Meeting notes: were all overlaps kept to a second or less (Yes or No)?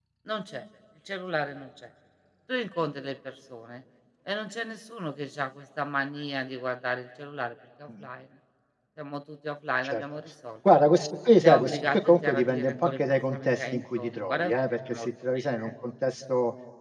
No